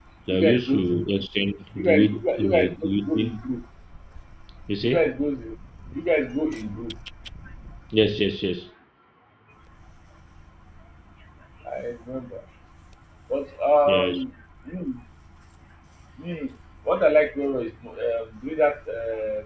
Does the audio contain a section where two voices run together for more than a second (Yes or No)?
Yes